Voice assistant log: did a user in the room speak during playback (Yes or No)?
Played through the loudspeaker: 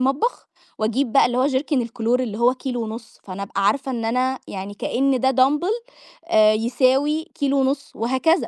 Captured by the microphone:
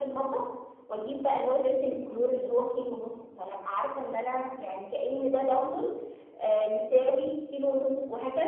No